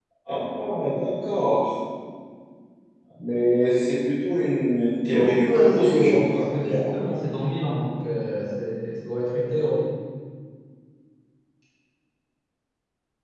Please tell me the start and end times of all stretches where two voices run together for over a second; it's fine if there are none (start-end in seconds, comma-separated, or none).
5.5-6.8